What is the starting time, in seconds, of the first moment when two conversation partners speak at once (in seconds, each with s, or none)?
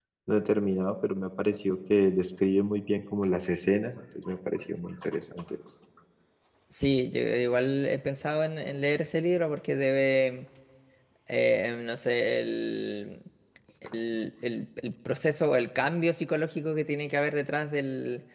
none